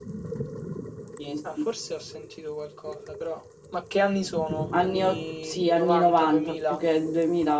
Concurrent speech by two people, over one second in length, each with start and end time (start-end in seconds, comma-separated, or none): 4.8-6.8